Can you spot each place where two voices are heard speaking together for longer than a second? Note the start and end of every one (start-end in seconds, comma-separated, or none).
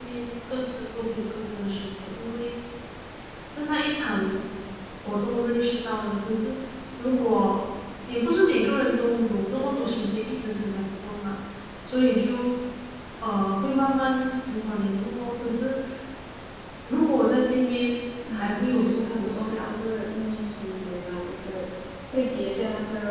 18.3-19.8